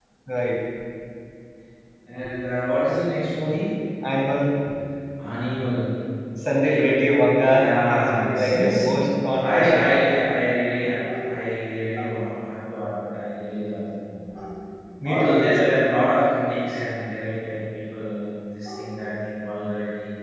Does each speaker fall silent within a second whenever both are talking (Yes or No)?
No